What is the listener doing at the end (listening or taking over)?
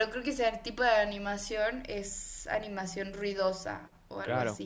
taking over